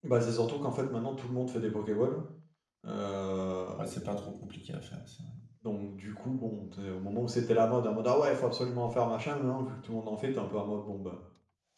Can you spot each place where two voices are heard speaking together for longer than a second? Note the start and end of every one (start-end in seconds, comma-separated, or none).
none